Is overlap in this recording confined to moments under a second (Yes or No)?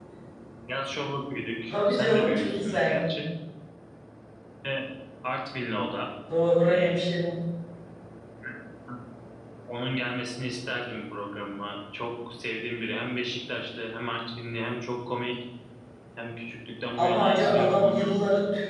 No